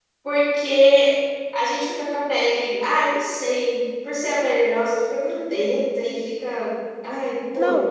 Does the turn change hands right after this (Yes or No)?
Yes